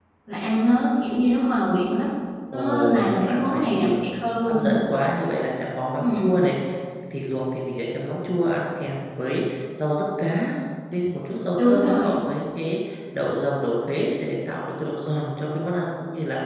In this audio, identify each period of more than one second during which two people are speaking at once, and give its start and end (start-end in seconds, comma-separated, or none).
2.5-3.9